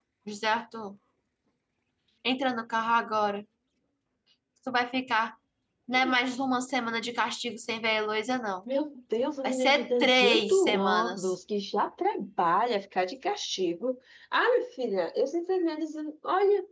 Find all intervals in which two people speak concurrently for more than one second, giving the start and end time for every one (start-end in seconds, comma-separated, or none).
9.4-11.3